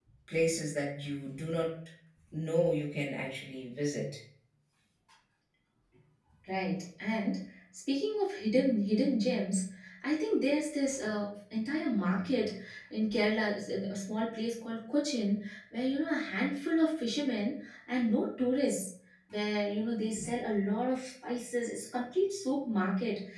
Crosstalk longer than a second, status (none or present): none